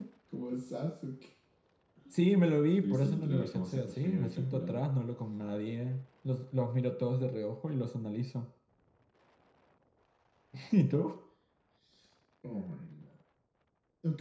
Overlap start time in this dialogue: 2.8 s

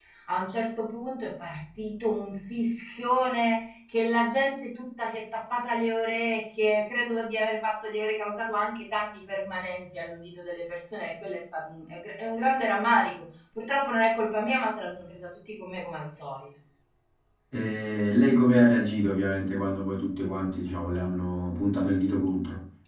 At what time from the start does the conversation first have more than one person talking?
none

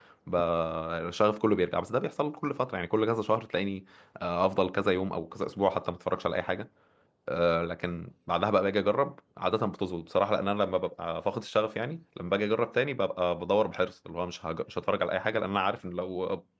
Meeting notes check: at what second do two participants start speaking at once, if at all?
none

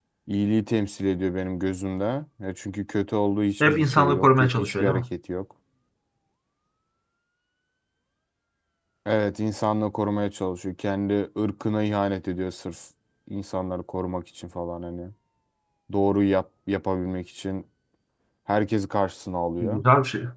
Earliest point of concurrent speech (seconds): 3.6 s

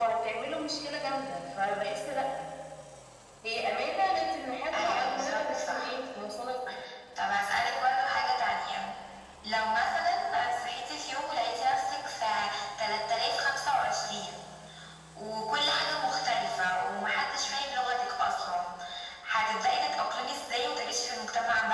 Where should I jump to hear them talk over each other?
4.7 s

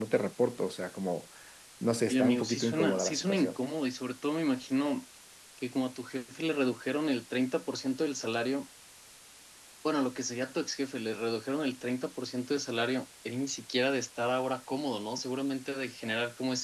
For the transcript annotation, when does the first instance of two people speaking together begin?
2.1 s

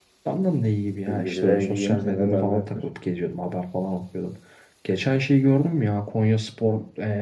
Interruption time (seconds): 1.1 s

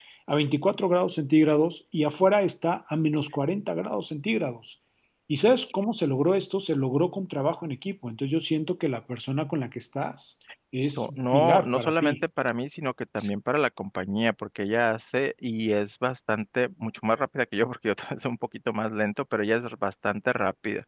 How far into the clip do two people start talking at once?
11.0 s

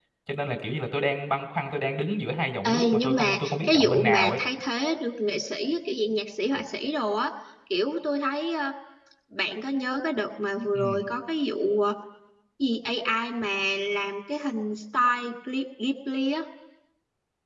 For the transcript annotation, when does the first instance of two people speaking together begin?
2.6 s

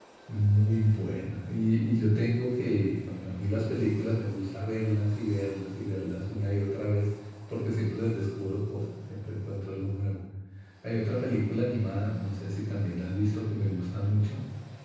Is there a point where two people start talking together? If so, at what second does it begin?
none

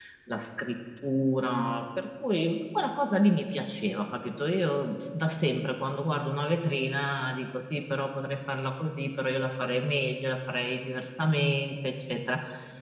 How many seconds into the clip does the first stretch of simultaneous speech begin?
none

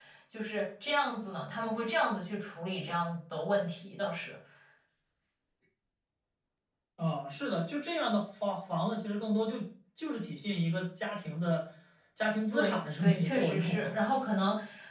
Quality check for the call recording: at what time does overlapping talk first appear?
12.5 s

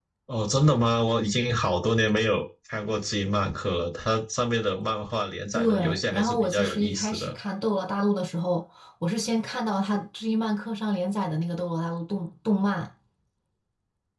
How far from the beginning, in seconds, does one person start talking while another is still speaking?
5.5 s

